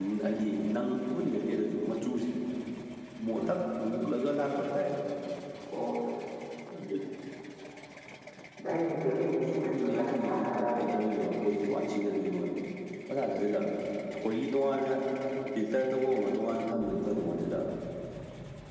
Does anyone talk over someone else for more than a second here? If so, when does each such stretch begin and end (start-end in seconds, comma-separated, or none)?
9.7-11.1